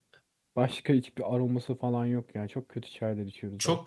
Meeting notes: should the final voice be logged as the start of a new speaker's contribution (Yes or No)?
Yes